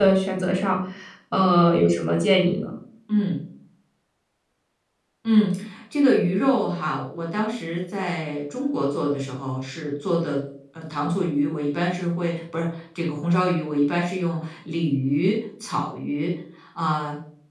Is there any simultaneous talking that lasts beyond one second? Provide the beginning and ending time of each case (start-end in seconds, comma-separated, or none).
none